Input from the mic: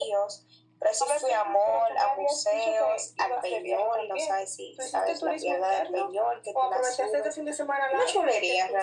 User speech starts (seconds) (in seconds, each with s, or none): none